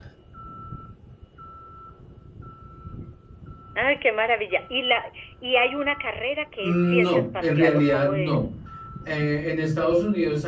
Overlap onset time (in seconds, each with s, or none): 6.6 s